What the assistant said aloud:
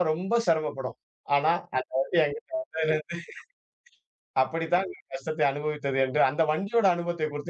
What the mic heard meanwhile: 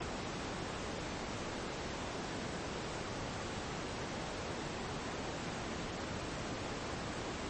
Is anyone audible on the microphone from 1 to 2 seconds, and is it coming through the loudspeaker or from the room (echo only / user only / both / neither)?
neither